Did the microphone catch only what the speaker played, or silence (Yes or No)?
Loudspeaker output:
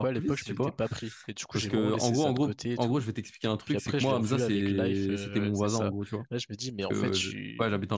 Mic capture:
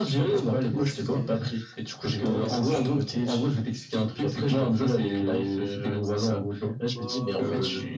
No